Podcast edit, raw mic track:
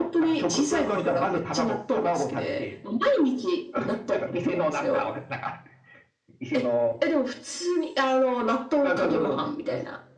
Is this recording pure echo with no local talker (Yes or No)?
Yes